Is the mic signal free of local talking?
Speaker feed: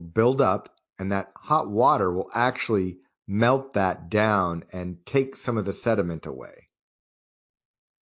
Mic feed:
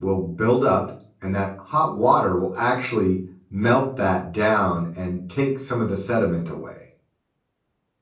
Yes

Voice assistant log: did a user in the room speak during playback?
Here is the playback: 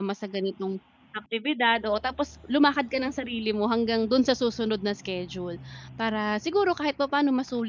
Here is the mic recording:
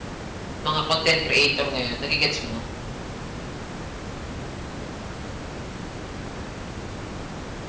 Yes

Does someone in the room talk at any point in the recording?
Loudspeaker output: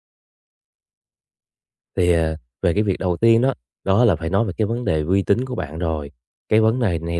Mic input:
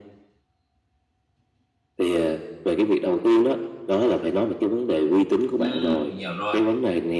Yes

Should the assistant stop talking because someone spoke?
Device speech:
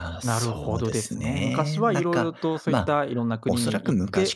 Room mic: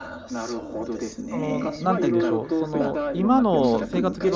Yes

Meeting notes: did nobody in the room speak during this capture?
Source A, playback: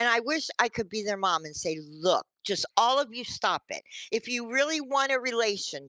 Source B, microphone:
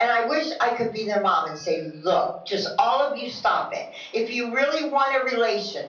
Yes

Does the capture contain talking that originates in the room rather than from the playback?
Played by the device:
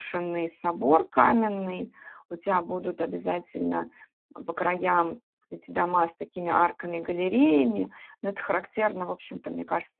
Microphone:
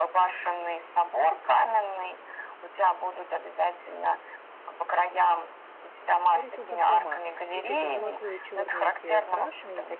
Yes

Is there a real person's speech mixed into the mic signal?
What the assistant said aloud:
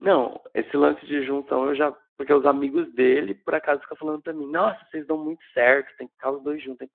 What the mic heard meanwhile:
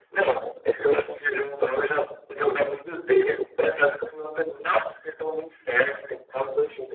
No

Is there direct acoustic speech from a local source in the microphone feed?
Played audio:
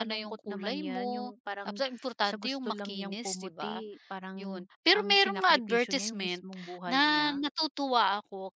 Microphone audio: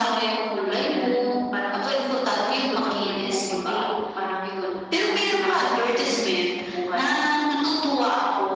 No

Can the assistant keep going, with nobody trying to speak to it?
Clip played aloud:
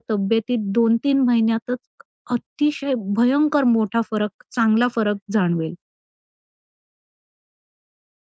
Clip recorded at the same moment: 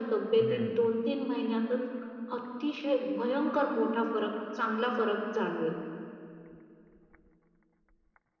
No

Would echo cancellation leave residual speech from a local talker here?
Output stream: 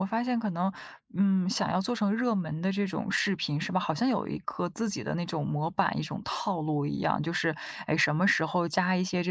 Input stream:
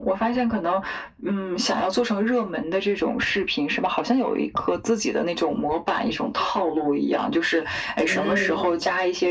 Yes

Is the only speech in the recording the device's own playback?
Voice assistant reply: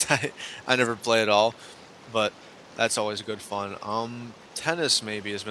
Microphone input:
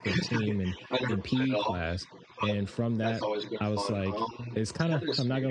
No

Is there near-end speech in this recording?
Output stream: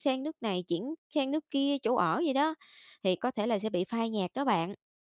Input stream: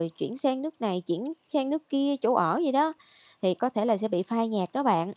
No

